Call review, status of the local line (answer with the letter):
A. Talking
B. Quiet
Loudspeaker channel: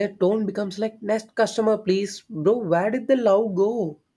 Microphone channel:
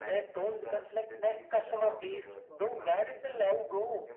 A